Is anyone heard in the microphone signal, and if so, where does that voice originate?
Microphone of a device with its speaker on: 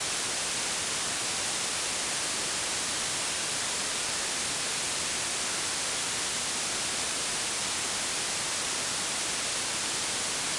neither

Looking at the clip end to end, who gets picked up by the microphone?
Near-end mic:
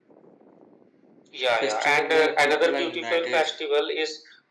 both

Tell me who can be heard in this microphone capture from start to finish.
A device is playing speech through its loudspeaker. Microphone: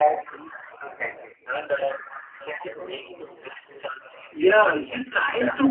both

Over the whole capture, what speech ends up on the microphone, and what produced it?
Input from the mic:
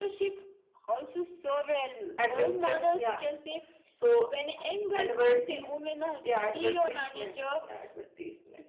both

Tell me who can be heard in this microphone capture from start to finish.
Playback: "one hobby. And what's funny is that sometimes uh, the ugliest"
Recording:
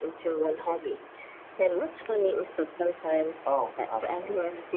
both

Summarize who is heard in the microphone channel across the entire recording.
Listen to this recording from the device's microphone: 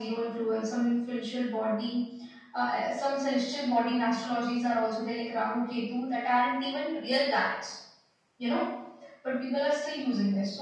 echo only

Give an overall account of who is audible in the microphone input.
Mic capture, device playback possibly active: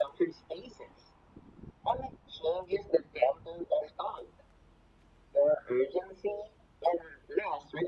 echo only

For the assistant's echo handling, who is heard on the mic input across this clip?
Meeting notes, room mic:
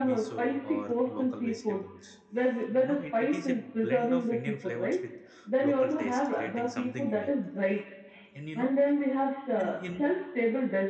both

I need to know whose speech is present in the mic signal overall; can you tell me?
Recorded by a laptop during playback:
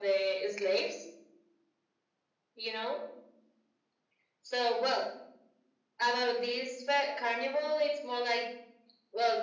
echo only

